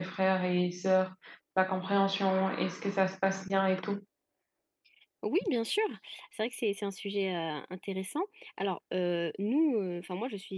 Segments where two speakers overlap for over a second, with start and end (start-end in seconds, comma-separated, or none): none